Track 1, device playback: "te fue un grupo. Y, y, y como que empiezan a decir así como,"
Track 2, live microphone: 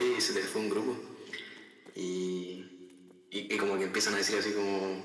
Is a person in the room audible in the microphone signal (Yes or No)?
No